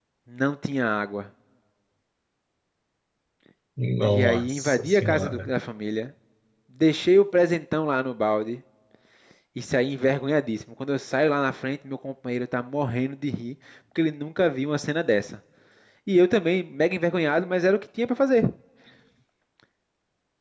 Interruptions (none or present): present